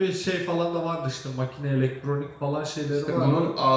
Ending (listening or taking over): taking over